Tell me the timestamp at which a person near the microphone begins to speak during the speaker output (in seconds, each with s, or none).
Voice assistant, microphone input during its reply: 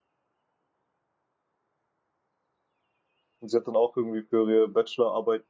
3.4 s